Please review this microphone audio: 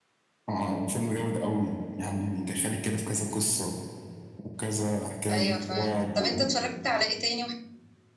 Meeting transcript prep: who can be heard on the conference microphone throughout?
both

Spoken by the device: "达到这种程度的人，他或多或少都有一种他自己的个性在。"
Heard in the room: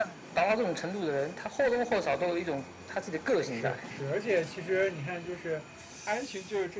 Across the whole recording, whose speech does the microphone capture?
both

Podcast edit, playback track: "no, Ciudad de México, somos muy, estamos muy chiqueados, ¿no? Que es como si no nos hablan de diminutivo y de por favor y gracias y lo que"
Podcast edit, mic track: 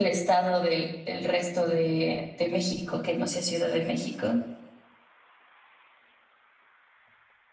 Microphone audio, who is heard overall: user only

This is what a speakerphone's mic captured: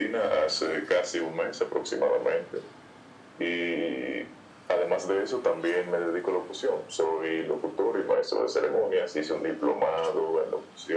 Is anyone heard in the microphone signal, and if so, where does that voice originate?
echo only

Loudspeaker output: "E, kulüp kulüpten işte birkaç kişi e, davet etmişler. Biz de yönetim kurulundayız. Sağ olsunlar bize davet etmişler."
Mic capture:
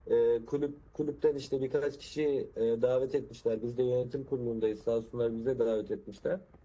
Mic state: echo only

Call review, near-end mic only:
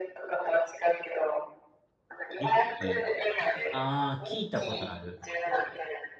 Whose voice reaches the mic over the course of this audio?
both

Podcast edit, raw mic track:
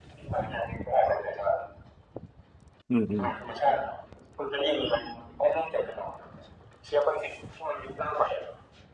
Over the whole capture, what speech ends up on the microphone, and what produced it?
both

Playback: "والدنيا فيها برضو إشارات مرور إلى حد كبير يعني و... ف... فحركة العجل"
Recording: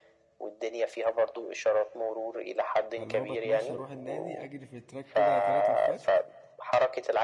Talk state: both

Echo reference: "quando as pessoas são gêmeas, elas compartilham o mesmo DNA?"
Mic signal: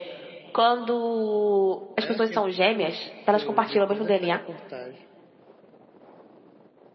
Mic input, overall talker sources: both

